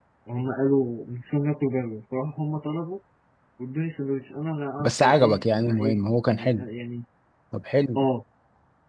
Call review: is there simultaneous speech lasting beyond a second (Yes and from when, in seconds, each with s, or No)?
Yes, from 4.8 s